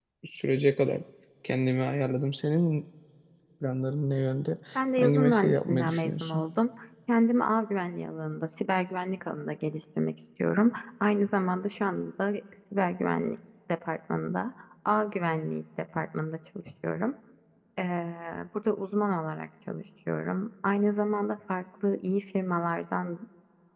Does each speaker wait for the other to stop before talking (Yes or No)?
No